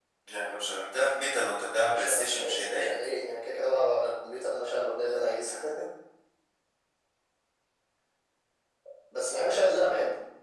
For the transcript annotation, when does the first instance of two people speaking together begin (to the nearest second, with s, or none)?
2 s